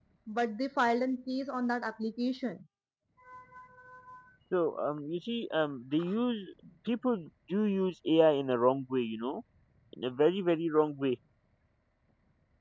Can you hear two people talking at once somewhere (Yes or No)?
No